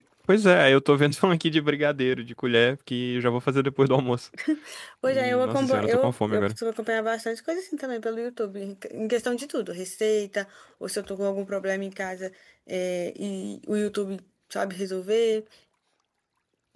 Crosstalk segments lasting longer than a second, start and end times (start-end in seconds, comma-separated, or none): 5.1-6.5